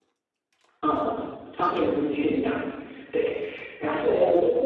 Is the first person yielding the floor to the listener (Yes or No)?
Yes